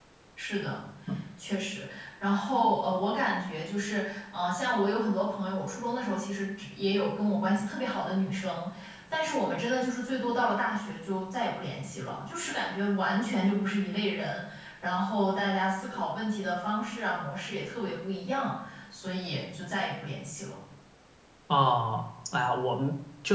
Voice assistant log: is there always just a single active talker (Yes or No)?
Yes